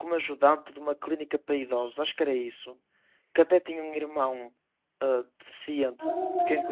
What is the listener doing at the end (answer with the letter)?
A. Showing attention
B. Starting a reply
B